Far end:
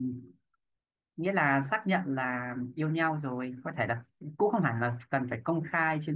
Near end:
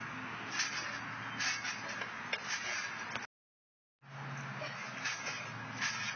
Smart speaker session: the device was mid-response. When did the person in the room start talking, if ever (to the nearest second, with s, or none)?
none